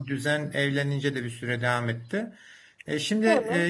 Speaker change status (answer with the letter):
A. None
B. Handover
A